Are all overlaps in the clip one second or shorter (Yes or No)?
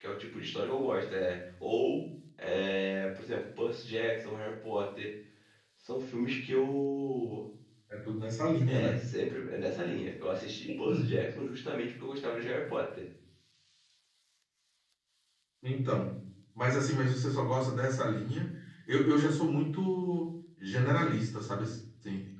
Yes